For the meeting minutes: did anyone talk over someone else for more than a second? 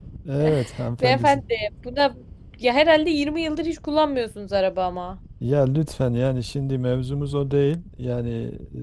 No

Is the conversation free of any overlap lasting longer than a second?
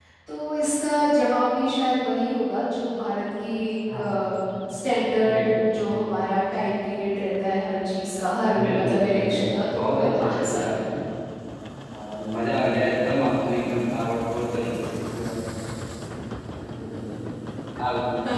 No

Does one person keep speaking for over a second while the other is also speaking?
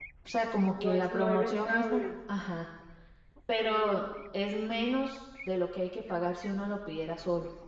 Yes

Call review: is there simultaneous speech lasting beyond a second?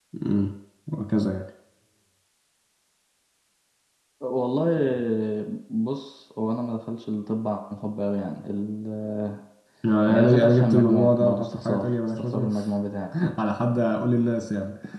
Yes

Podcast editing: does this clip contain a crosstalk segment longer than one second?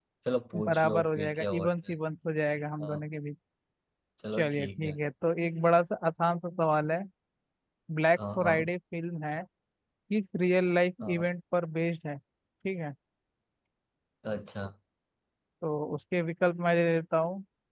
Yes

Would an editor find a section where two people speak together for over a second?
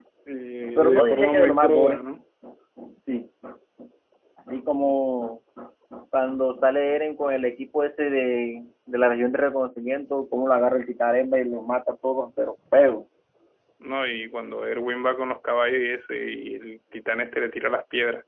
Yes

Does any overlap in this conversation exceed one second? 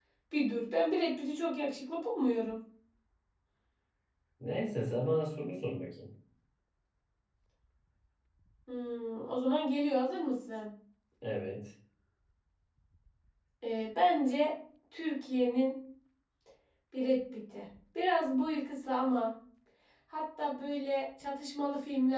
No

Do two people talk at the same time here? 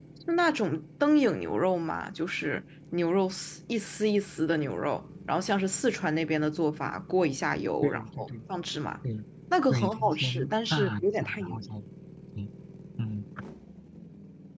Yes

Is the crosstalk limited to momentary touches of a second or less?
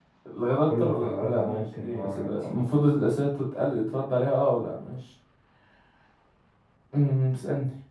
No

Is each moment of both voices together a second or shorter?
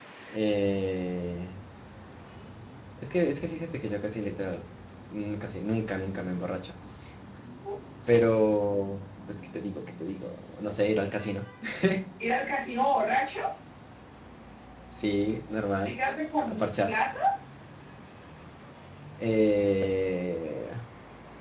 Yes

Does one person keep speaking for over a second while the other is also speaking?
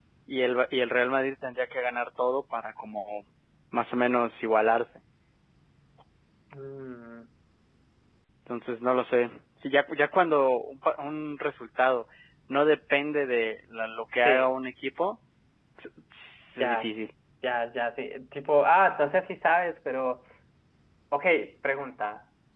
No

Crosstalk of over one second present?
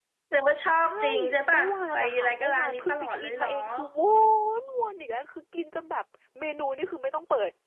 Yes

